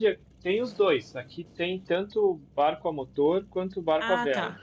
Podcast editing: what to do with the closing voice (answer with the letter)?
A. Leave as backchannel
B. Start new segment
A